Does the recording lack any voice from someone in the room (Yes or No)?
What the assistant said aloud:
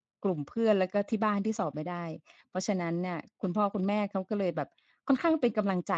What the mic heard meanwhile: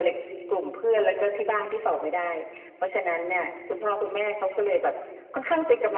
Yes